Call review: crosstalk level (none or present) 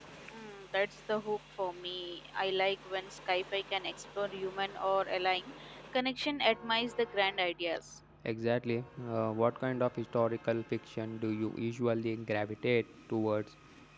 none